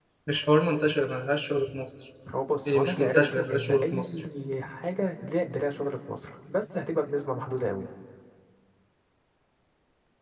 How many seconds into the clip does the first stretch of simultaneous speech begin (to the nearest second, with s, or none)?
3 s